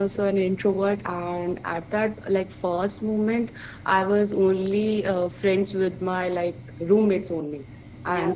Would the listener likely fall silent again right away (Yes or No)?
Yes